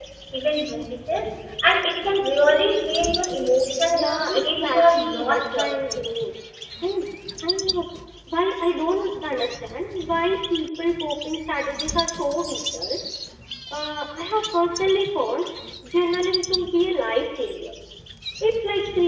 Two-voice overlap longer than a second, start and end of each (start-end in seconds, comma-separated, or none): 3.9-6.0